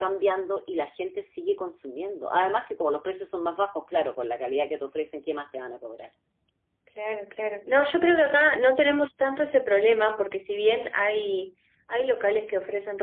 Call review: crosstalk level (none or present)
none